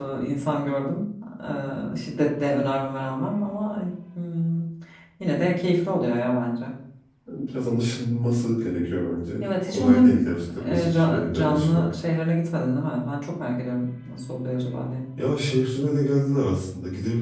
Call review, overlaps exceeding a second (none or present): present